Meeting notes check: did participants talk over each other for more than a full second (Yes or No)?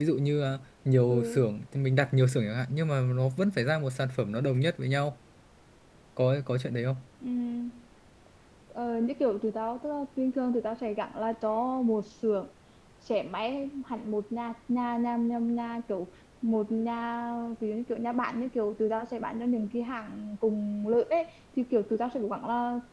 No